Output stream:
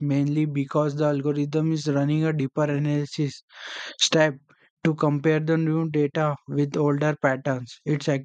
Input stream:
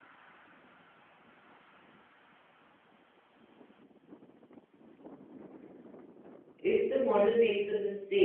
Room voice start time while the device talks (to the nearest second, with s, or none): 7 s